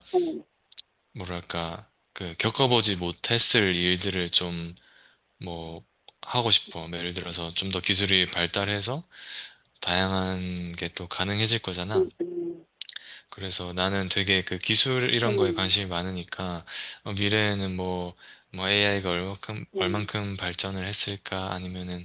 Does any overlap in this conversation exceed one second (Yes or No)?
No